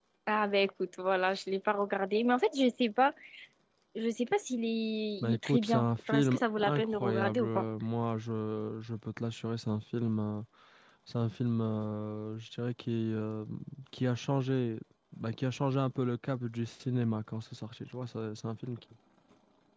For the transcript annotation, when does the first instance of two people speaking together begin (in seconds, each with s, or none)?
5.2 s